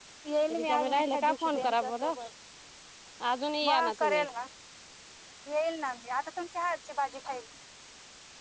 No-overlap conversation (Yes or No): No